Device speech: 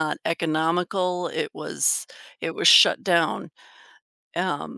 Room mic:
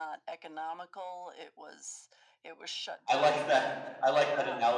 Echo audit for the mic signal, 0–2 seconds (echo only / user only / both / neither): echo only